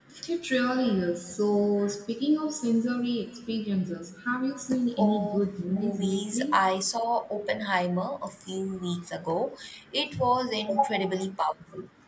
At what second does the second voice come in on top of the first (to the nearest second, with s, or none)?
5 s